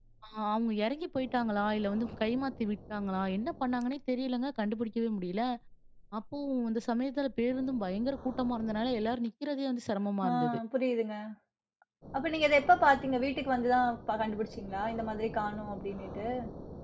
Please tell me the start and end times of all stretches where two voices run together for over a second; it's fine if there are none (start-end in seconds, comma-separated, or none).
none